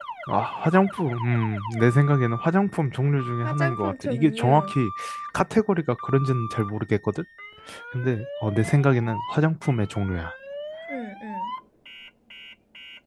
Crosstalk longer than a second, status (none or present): present